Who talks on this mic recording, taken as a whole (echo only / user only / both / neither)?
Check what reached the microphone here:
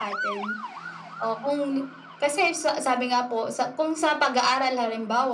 echo only